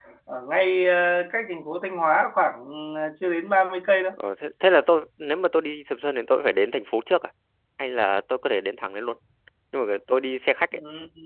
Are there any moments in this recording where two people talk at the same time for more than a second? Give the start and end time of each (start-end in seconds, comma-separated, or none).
none